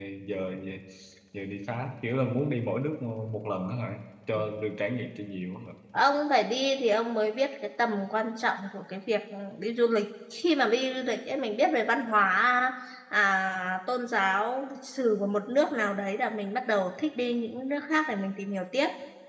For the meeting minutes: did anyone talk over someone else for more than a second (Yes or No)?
No